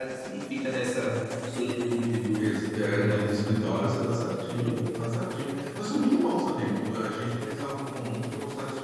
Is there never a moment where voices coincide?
No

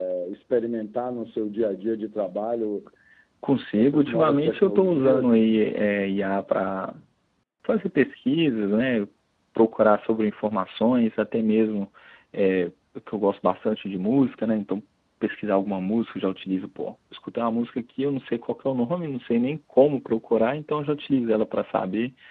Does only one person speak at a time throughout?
No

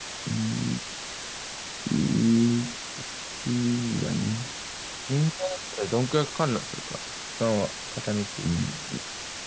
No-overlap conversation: Yes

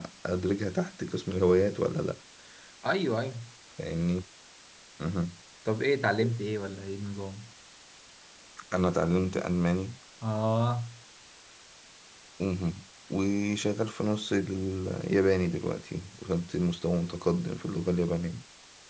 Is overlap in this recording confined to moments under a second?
Yes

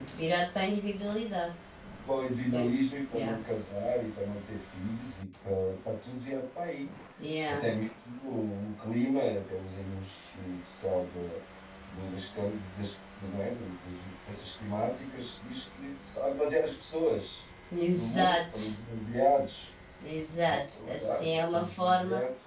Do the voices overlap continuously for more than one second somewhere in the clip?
Yes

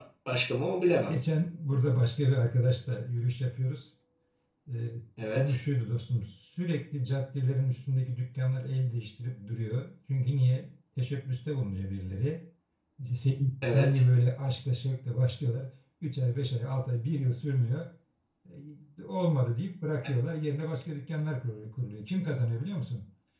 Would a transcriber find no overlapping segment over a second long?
Yes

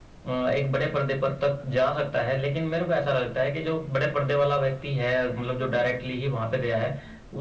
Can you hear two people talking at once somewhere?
No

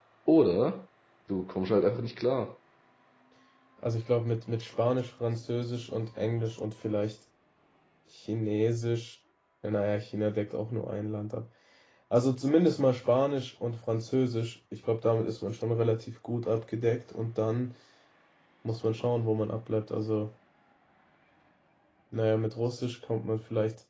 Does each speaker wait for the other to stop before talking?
Yes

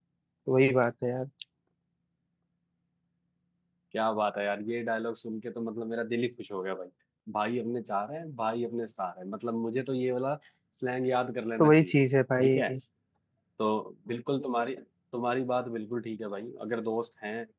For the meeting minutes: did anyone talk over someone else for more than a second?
No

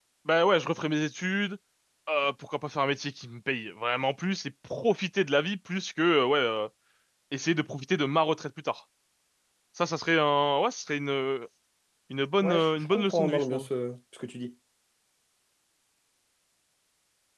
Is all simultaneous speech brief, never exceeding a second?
No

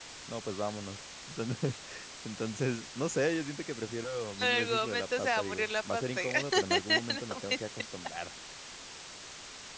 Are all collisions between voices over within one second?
No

